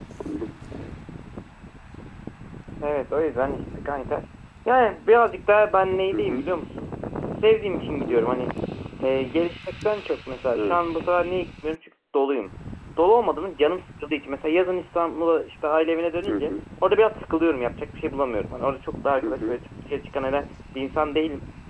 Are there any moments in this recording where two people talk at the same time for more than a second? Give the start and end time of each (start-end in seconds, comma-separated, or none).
none